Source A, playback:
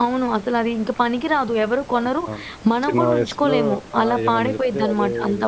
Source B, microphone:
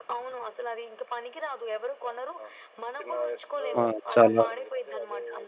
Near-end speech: present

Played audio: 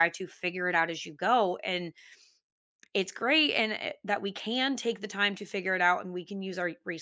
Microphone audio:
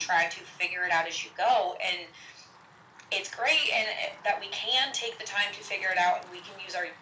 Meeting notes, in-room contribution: none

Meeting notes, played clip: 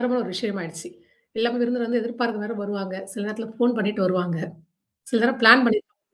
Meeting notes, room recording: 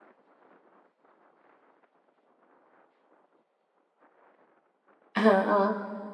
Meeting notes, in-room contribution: present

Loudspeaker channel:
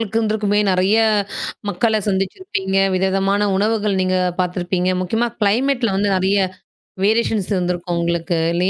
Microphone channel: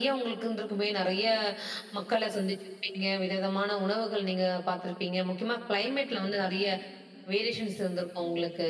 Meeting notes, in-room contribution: none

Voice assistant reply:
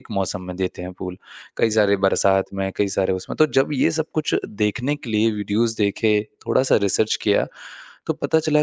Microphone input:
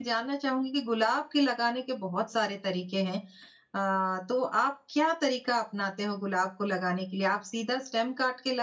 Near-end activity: present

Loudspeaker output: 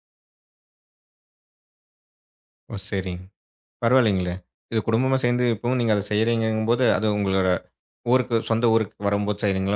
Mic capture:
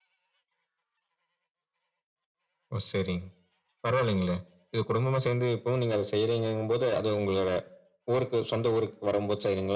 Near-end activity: none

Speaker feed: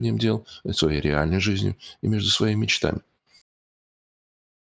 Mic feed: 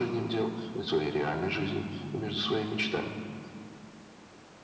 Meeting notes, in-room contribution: none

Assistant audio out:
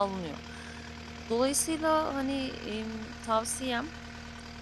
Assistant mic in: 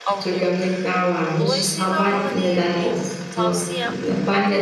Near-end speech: present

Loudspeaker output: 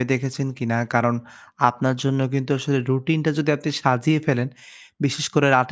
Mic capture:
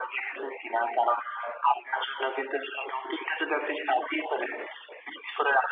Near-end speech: none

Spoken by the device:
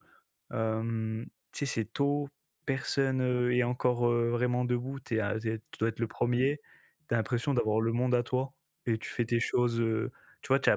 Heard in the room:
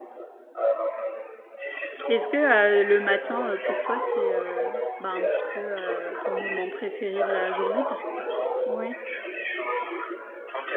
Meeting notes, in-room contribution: present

